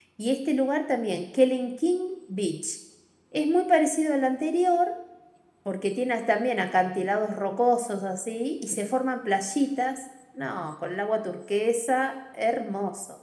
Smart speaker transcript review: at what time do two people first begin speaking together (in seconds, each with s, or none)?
none